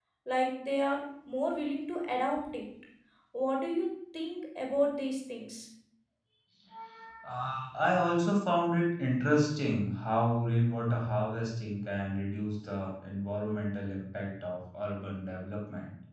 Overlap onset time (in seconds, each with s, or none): none